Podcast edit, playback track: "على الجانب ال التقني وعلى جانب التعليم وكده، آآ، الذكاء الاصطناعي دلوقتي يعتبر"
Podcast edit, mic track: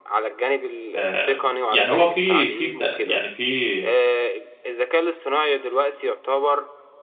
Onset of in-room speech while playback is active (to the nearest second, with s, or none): 1 s